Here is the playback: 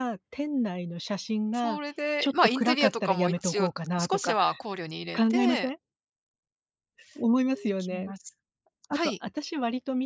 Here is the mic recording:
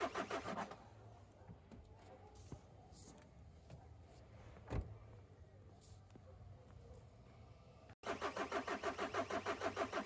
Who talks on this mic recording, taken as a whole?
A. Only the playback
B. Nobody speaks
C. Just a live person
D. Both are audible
B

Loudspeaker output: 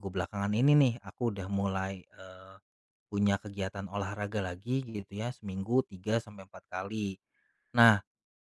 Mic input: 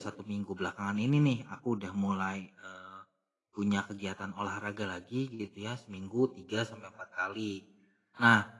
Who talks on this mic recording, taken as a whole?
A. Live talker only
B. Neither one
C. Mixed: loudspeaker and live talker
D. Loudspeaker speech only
D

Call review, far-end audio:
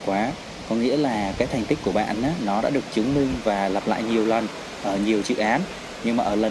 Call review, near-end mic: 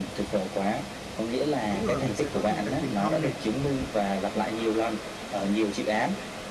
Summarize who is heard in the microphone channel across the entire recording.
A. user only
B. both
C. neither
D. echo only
B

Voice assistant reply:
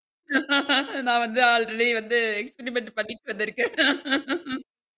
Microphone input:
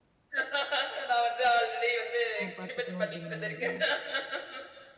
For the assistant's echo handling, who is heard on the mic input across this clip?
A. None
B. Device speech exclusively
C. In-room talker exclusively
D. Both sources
D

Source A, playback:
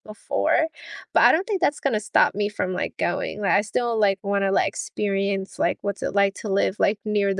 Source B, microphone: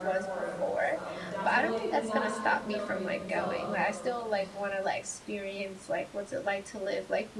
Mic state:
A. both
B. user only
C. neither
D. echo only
A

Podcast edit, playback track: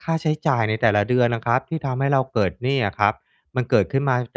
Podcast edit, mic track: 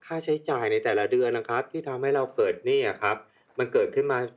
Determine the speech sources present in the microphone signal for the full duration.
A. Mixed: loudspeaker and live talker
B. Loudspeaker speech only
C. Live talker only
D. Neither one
B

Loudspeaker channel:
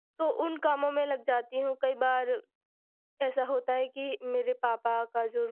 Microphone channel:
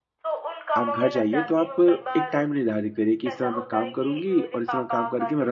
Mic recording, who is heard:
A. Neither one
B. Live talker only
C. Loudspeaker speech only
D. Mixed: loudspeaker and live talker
D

